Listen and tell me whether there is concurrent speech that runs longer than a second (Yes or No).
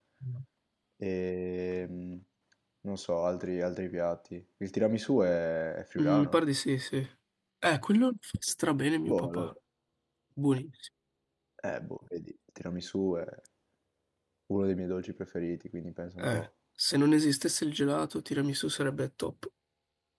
No